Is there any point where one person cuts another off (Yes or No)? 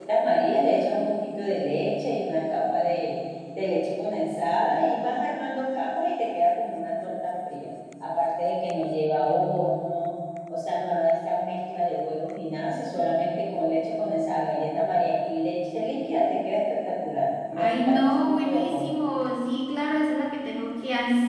Yes